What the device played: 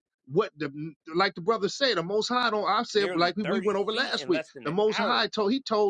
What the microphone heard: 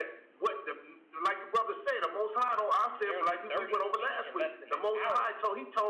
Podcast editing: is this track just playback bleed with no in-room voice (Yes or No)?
Yes